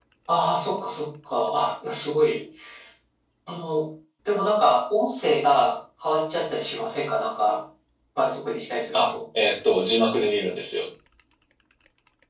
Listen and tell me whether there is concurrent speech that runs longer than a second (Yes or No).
No